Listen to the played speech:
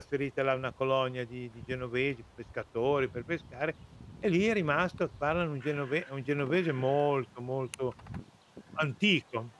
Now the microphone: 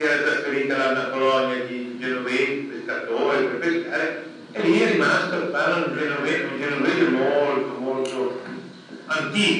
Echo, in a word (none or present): present